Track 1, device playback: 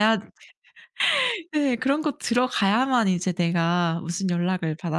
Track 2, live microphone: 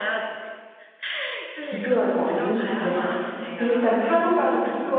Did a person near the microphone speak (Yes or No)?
Yes